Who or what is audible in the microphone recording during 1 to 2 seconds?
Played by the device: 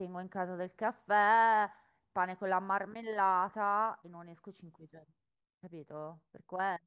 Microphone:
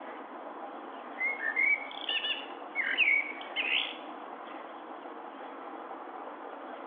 neither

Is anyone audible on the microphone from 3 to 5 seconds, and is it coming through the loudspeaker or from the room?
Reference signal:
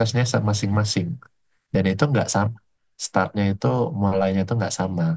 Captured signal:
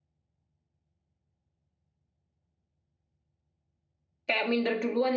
user only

